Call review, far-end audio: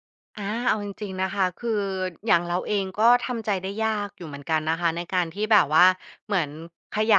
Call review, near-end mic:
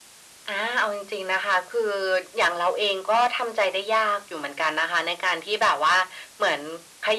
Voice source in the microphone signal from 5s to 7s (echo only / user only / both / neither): echo only